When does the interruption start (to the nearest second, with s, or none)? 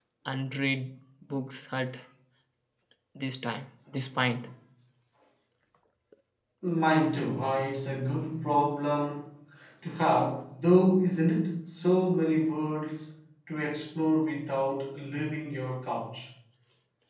none